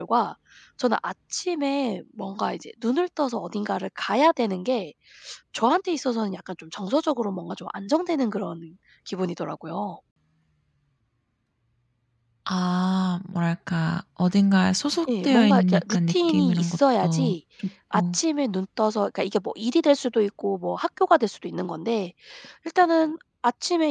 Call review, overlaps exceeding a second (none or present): present